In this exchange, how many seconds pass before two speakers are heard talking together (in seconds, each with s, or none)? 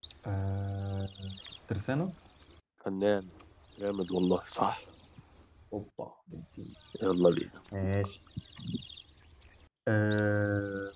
none